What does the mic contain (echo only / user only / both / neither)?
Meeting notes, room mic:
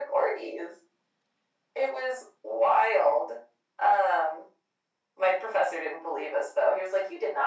echo only